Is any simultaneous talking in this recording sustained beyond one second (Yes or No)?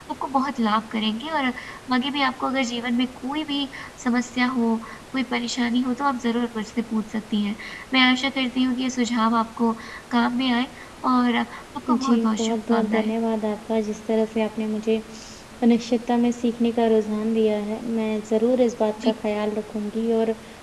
Yes